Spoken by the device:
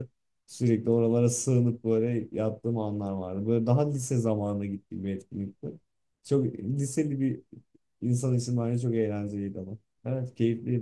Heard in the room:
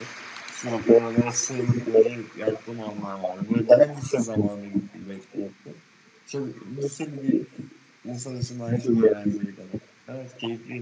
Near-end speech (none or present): none